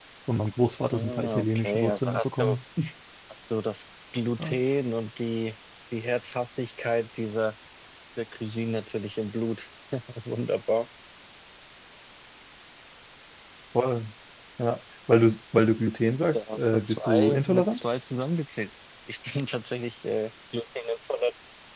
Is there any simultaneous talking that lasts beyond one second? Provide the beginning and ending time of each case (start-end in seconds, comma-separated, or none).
0.9-2.6, 16.3-17.9